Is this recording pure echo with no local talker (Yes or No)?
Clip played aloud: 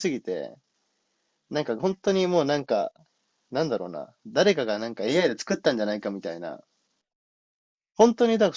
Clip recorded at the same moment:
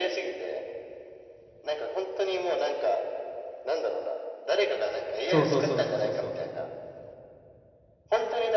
No